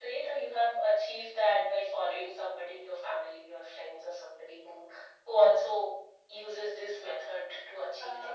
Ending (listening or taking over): taking over